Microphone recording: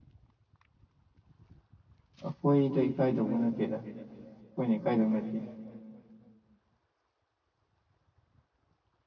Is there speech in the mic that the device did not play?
Yes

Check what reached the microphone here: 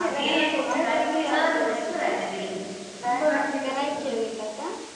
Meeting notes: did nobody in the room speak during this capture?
No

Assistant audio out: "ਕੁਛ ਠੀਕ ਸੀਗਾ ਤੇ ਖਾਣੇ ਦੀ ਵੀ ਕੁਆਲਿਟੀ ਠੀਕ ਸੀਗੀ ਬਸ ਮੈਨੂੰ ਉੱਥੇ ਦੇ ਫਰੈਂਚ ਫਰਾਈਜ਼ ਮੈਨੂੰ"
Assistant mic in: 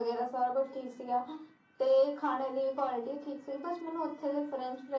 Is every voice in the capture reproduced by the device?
Yes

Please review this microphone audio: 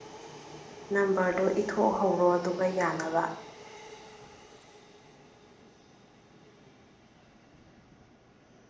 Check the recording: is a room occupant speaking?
Yes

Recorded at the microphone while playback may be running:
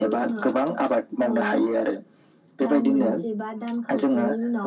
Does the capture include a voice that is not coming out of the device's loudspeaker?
Yes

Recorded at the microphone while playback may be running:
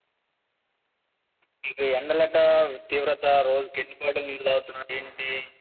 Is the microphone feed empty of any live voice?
Yes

